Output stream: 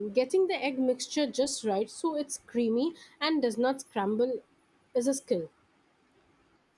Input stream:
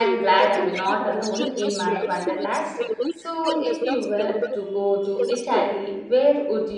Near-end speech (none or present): present